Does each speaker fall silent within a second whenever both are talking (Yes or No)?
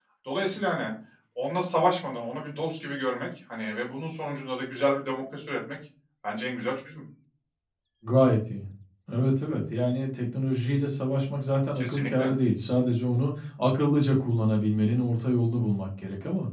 Yes